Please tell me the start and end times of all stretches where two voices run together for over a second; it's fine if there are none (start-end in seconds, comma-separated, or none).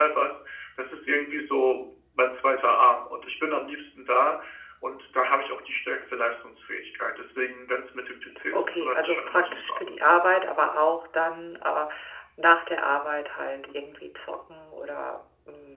8.5-9.9